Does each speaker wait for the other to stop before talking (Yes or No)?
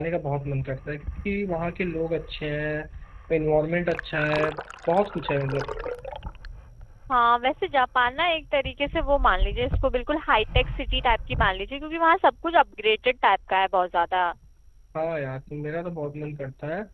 Yes